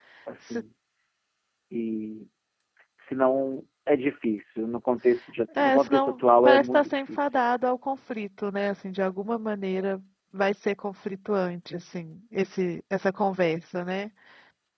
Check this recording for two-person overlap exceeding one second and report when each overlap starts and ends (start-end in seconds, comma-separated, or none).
5.6-7.2